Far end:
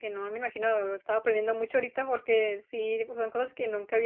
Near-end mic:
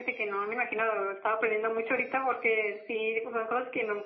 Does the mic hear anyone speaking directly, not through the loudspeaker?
No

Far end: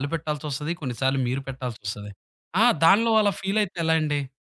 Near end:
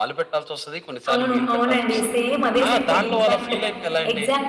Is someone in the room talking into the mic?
Yes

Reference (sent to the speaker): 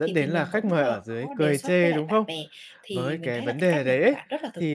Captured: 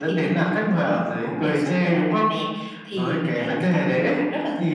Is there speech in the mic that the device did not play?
No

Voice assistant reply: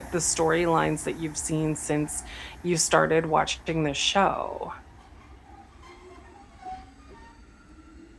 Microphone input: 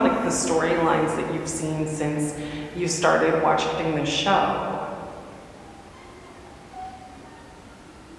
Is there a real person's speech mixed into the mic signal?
No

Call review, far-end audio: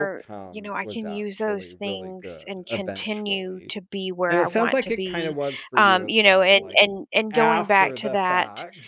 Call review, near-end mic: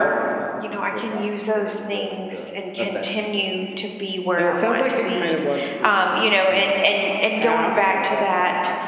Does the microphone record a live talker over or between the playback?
Yes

